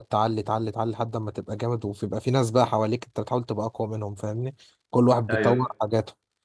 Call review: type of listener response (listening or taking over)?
listening